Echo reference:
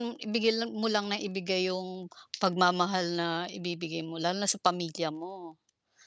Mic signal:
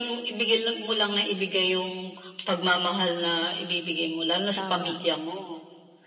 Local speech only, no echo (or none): Tama.